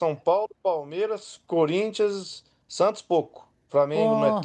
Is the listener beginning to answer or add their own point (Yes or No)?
No